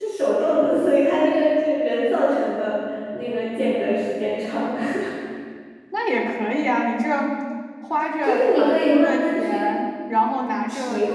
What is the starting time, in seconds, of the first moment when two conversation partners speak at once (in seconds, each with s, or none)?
8.2 s